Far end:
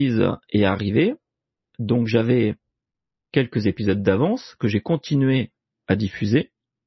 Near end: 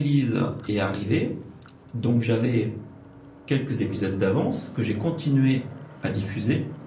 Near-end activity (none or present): none